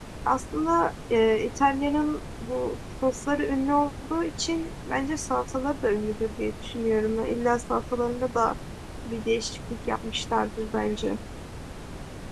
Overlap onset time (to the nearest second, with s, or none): none